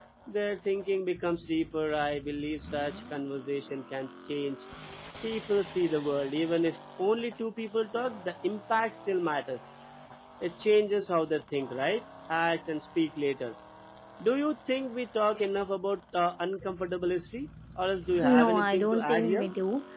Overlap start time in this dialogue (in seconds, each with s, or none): 18.2 s